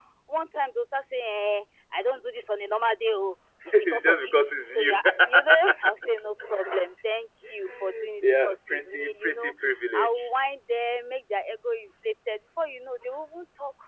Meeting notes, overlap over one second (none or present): present